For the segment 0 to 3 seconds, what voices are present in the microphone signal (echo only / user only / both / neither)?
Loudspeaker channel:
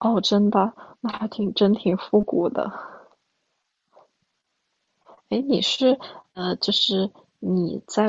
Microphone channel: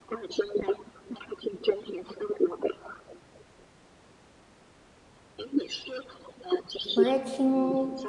echo only